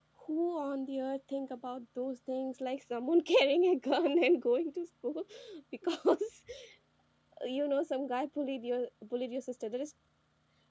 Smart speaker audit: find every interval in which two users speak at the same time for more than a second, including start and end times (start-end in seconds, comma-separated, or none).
none